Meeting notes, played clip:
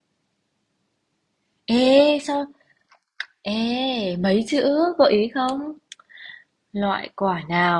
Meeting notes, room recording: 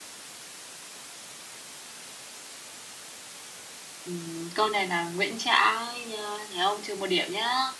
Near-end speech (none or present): present